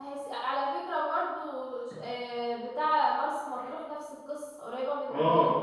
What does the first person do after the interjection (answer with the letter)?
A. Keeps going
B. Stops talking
B